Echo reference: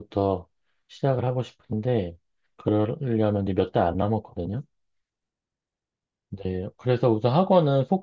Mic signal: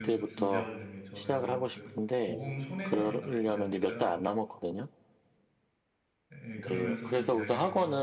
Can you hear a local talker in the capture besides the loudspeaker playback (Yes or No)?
Yes